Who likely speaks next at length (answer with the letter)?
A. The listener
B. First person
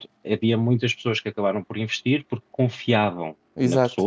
B